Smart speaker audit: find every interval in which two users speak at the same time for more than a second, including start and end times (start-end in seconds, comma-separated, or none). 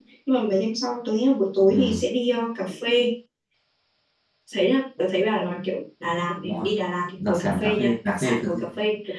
7.3-8.5